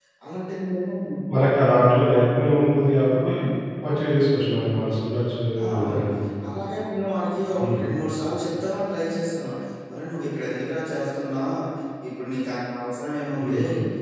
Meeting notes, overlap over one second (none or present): none